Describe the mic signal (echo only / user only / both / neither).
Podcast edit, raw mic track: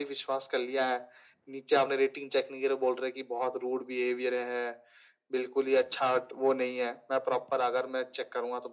echo only